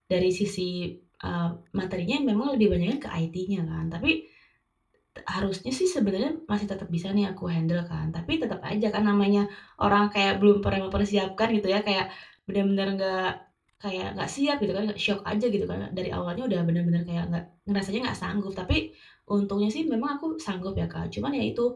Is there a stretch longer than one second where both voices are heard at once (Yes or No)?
No